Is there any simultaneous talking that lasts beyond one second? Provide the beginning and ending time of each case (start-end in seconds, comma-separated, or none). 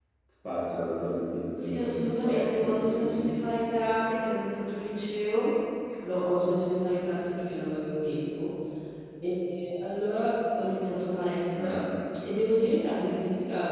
1.6-3.5